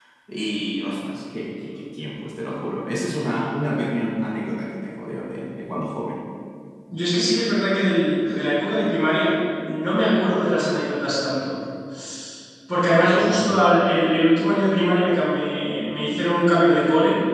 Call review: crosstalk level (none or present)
none